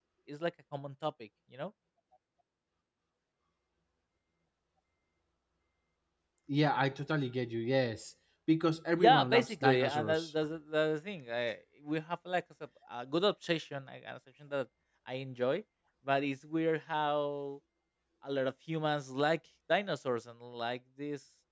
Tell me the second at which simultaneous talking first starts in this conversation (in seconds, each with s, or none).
9.0 s